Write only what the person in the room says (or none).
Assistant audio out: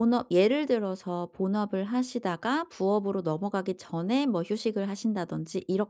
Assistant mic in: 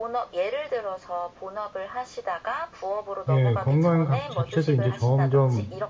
예 건강 각 자체도 이제 점점